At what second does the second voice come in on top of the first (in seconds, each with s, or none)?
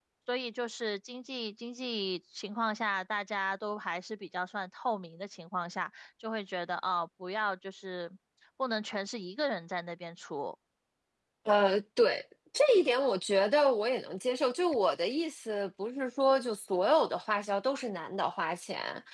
none